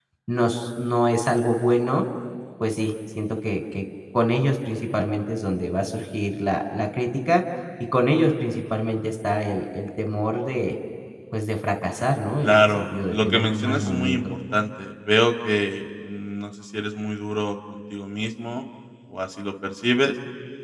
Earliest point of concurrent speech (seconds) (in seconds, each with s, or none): 12.4 s